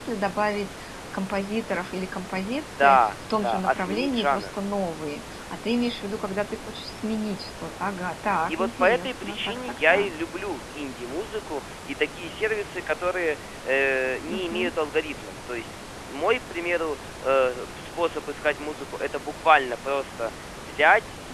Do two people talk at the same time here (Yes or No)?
Yes